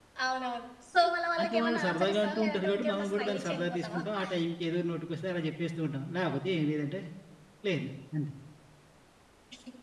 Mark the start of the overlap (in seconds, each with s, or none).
1.4 s